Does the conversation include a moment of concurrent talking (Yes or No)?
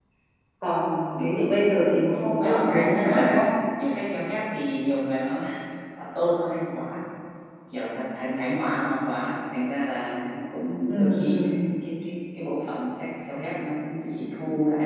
Yes